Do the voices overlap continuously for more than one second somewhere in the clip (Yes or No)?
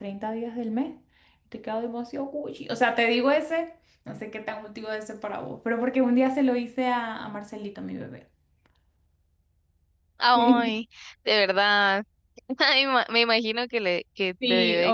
No